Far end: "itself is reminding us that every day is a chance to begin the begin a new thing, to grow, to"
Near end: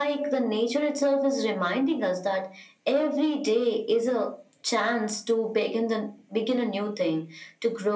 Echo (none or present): present